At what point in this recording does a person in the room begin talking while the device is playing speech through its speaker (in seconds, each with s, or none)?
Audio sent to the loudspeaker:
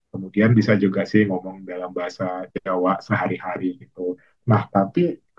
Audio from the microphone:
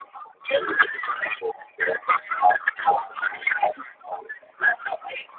none